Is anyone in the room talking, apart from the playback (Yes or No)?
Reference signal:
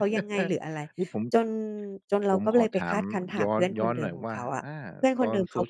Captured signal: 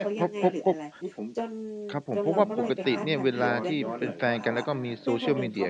Yes